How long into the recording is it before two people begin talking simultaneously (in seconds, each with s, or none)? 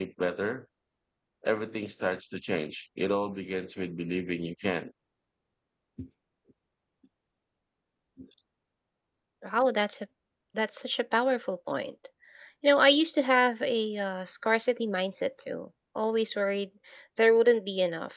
none